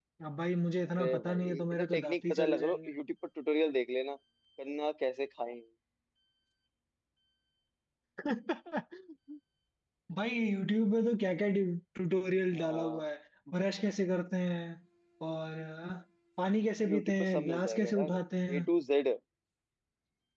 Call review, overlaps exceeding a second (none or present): present